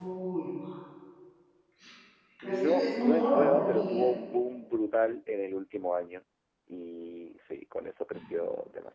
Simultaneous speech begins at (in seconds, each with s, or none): 2.4 s